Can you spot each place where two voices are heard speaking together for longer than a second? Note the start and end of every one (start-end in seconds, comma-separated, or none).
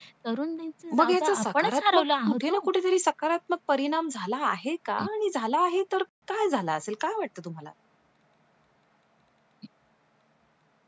1.0-2.6